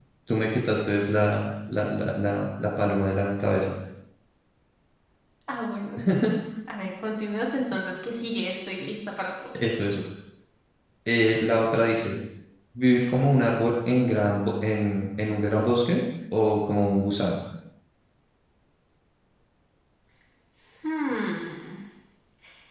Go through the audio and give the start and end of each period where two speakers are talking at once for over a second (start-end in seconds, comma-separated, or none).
none